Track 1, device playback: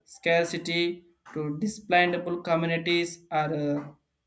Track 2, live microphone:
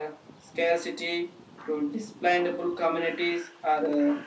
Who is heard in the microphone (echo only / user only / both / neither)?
echo only